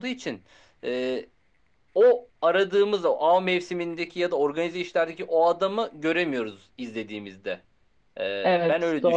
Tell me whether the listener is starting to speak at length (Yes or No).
Yes